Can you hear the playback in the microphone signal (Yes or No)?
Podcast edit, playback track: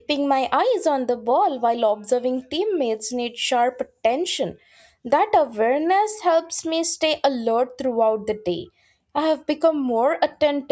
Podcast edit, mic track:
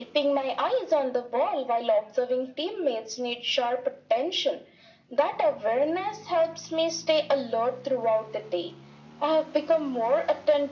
Yes